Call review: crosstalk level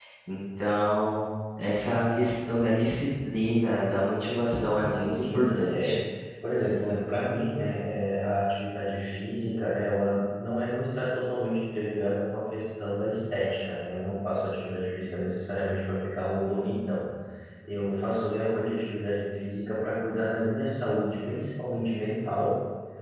present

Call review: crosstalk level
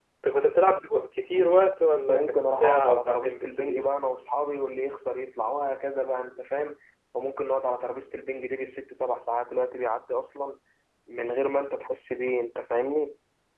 present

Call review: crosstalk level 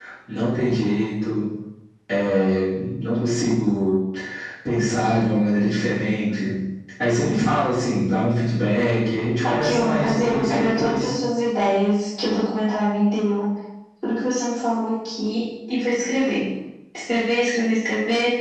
present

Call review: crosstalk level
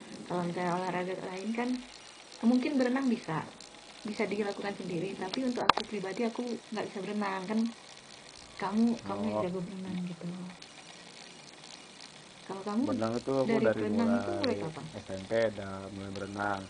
present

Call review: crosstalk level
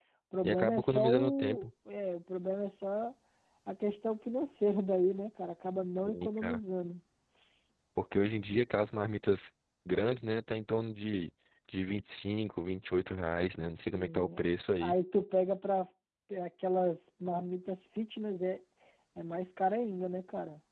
present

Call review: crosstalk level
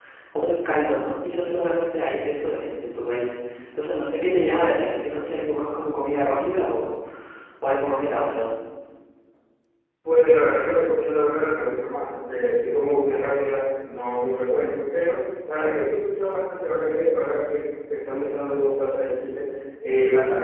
none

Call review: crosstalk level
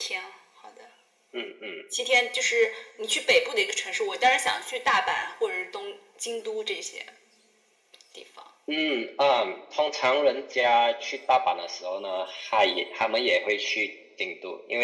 none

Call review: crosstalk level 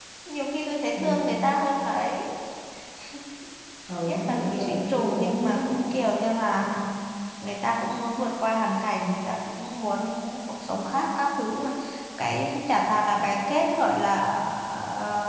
present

